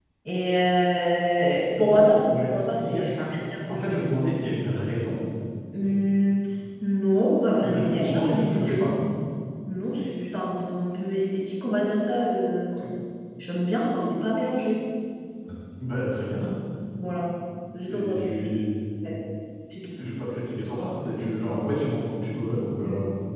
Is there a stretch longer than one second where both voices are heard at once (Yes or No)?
Yes